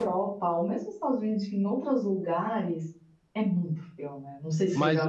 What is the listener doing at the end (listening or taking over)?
taking over